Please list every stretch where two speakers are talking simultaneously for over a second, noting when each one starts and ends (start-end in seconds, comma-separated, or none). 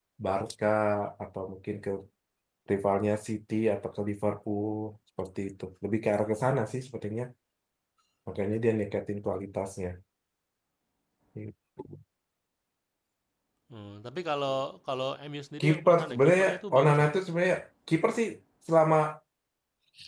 15.6-17.1